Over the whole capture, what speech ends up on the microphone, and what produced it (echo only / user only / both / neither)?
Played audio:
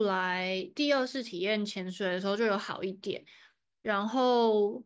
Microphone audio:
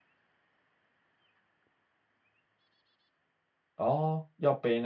user only